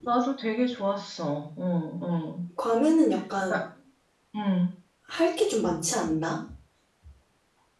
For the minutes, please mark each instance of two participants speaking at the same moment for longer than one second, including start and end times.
none

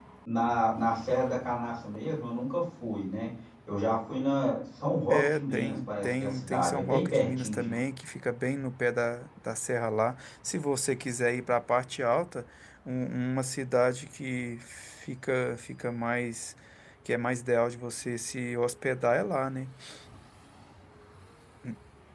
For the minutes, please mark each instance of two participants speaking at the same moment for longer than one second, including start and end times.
5.1-7.8

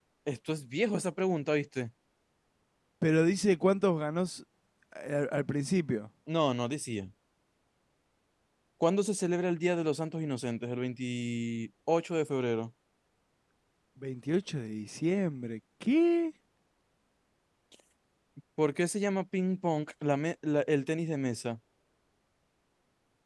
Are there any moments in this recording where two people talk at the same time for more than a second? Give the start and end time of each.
none

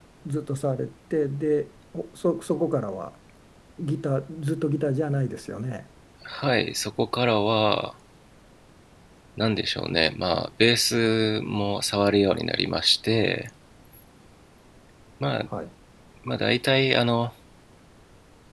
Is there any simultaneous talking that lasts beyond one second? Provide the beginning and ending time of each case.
none

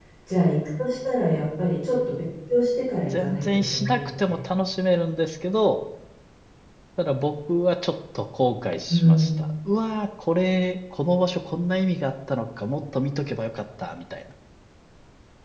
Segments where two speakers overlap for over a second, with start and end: 3.1-4.4

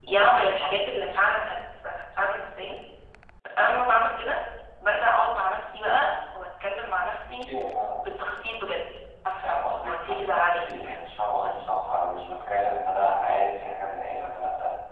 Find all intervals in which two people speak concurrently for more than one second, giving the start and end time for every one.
9.4-10.6

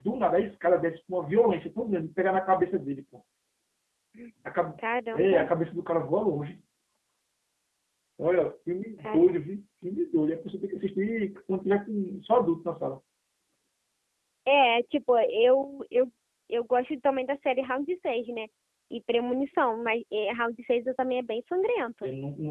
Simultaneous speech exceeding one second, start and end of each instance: none

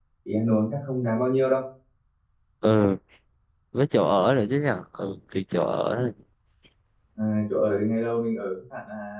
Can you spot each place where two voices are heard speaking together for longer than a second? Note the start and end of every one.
none

